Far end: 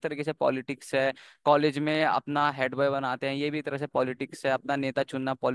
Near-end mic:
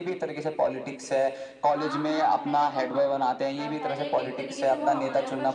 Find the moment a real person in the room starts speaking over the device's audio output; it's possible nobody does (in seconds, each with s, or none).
1.7 s